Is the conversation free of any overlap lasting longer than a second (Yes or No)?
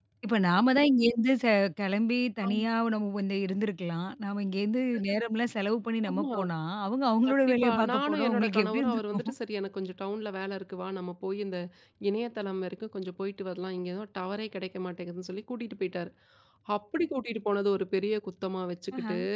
No